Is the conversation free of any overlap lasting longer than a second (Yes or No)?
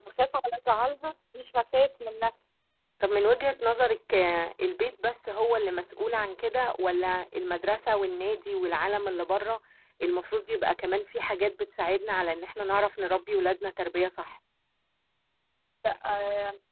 Yes